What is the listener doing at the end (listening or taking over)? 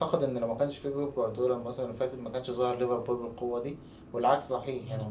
taking over